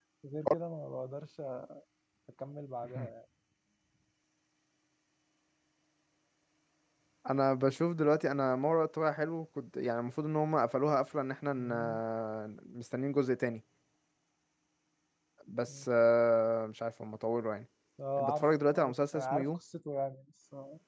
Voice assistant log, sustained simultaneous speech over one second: present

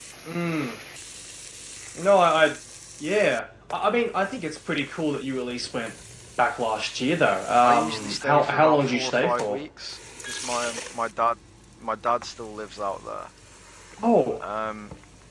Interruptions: present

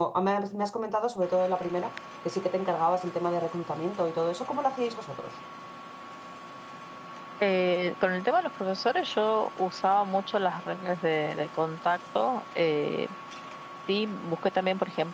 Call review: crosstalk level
none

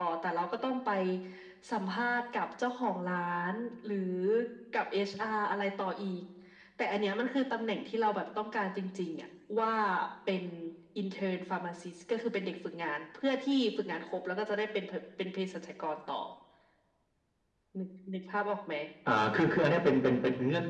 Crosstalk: none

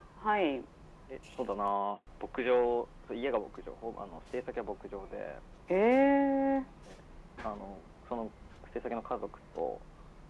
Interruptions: none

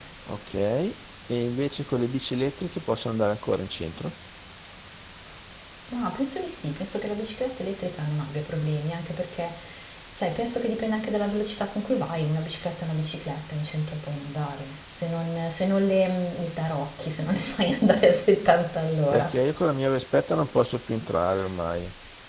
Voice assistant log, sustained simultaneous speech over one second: none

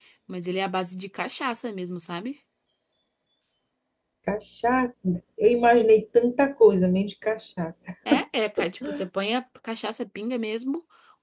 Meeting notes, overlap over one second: none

